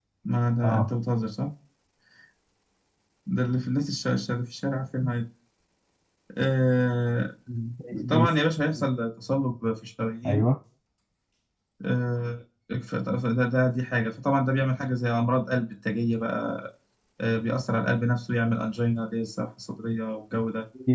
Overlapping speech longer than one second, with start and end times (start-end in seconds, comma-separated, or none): none